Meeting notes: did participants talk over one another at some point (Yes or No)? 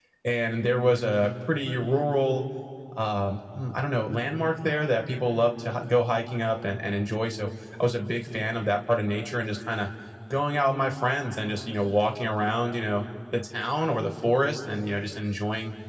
No